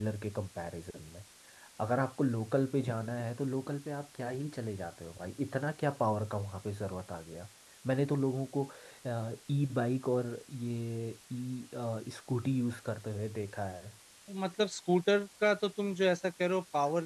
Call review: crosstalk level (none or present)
none